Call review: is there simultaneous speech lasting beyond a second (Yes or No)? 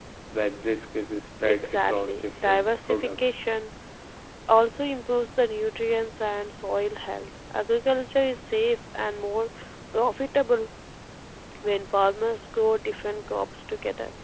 Yes